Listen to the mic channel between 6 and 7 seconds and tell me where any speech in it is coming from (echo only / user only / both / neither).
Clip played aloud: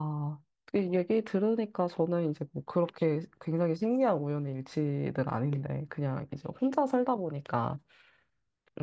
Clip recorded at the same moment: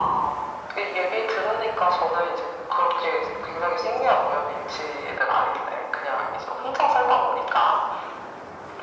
echo only